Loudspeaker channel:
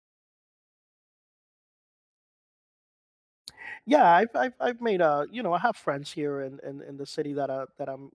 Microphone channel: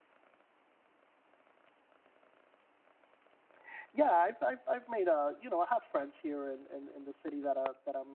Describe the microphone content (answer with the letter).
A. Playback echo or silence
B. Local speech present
A